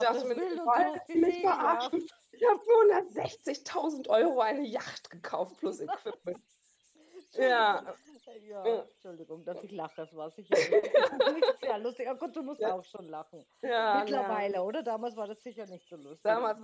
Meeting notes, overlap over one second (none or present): present